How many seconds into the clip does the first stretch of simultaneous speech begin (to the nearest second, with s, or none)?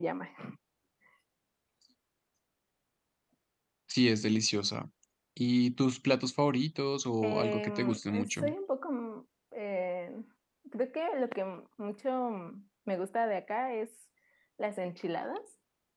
7 s